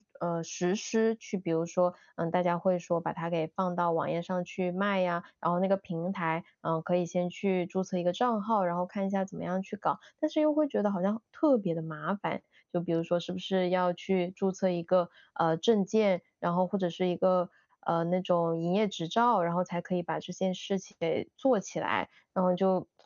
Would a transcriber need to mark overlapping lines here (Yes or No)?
No